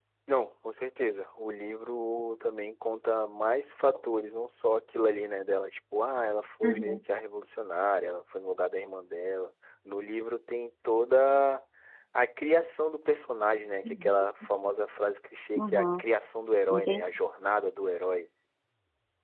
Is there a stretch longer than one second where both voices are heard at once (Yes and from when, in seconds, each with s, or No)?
No